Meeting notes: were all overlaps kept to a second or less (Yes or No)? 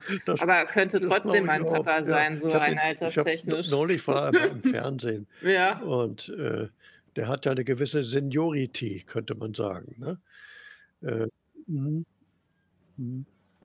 No